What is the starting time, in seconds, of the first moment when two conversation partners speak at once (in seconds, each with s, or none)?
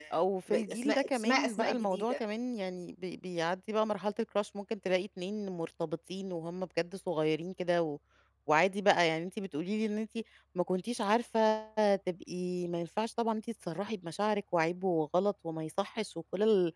0.5 s